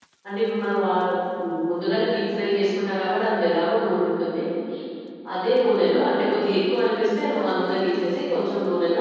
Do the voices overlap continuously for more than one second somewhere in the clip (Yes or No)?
No